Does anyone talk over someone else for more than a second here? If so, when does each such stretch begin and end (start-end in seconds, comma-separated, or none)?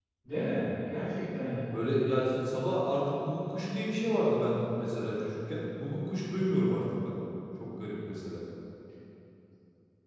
none